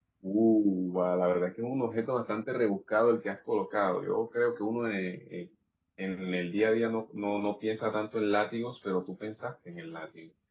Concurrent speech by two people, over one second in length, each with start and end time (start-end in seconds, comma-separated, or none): none